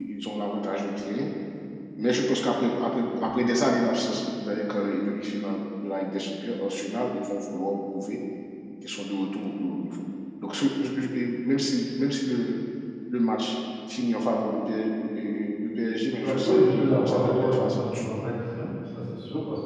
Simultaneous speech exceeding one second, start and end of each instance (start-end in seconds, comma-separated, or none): 16.2-18.1